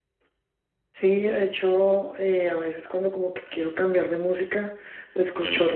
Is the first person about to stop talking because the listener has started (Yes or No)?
No